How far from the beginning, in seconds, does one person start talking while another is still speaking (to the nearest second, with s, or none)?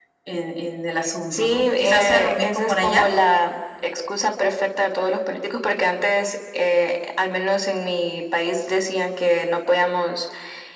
1 s